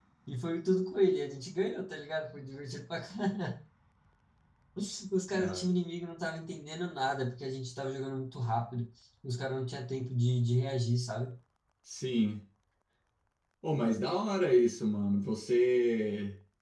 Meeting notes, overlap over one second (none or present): none